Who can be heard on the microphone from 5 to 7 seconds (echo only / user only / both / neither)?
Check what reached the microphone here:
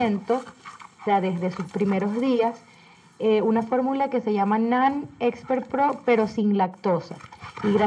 echo only